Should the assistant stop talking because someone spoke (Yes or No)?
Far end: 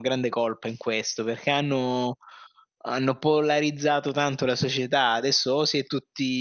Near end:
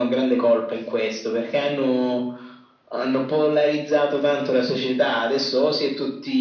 No